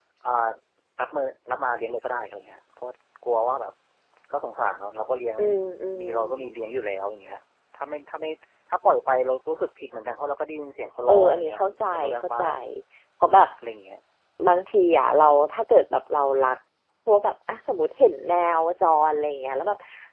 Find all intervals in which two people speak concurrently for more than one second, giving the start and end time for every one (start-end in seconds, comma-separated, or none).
11.1-12.4